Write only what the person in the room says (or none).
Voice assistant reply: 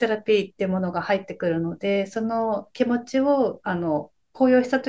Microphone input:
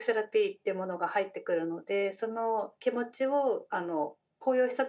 none